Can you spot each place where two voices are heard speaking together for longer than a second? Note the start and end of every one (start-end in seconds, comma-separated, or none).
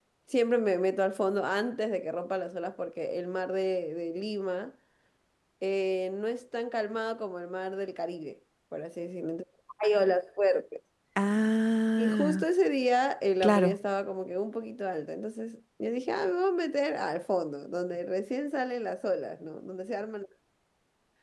none